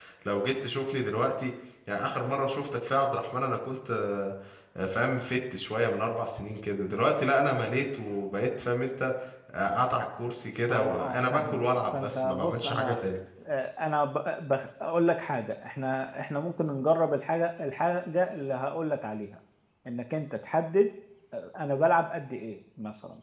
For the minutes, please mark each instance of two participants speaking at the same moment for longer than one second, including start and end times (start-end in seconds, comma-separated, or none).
10.7-13.0